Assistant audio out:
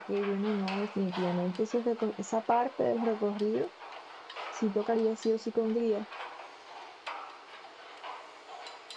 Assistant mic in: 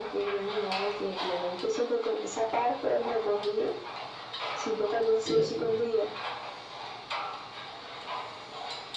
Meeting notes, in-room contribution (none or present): present